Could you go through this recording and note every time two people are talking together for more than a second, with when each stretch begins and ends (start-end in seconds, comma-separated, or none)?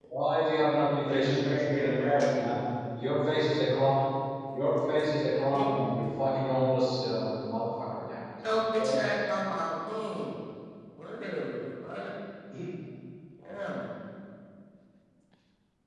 1.1-2.5